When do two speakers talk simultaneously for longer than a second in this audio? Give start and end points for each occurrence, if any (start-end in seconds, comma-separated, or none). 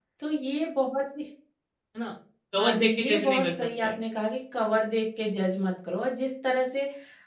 2.6-3.9